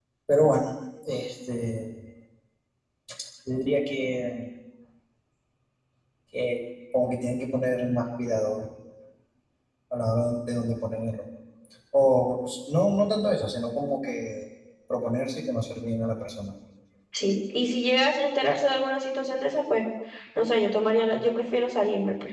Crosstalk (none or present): none